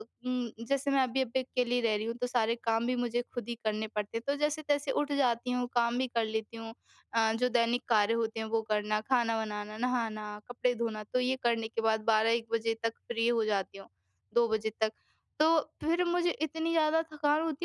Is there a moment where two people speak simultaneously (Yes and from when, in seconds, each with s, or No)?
No